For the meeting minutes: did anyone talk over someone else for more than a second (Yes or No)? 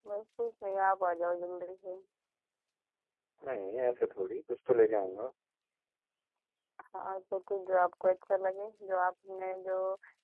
No